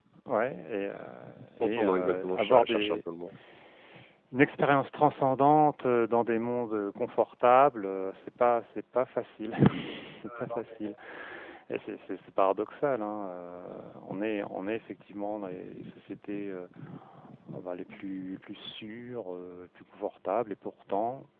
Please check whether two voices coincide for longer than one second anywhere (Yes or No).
Yes